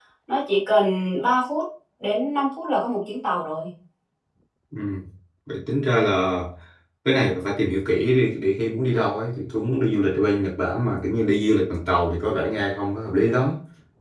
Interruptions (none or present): none